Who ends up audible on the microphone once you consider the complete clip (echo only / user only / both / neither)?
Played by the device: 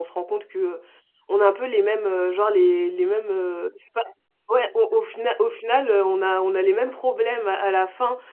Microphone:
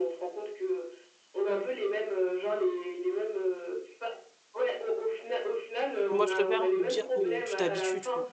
both